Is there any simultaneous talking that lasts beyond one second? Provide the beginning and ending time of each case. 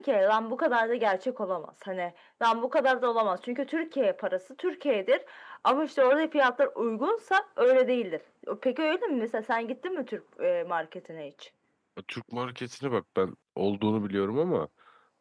none

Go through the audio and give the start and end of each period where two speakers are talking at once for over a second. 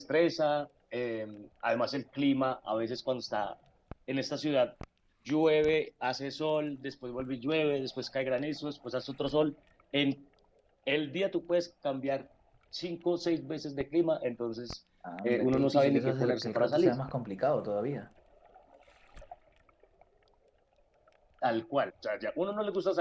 15.2-16.9

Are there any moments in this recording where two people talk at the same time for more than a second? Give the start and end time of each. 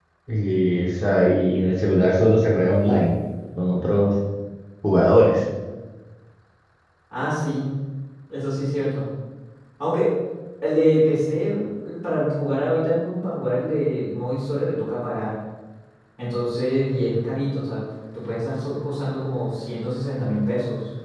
none

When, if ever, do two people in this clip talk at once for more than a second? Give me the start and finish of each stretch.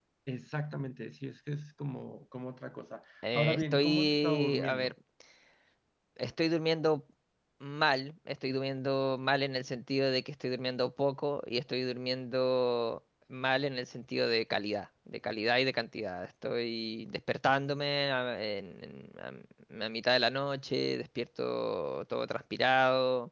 3.3-4.9

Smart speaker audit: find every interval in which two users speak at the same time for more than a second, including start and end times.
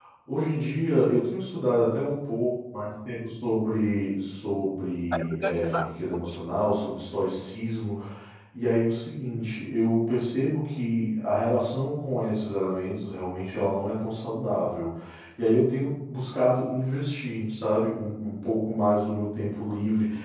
5.1-6.4

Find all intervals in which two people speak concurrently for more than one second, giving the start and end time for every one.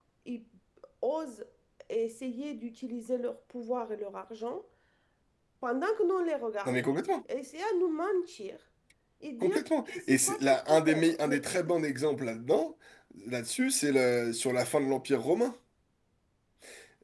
9.4-11.4

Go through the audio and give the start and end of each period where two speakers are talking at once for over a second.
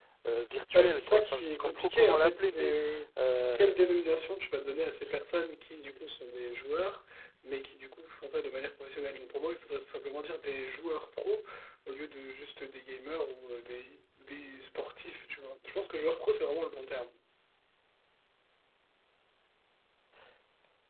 0.7-2.7

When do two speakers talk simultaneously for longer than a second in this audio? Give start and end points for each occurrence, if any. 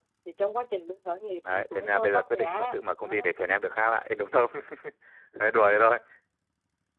1.5-3.3

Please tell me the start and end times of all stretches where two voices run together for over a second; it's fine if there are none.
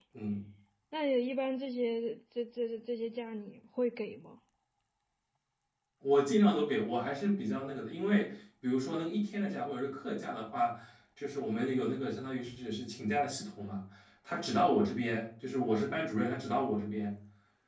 none

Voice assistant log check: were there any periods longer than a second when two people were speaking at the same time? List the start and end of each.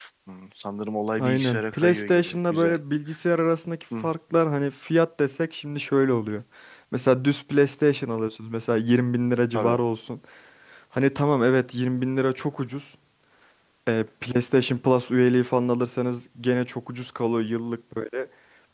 1.2-2.8

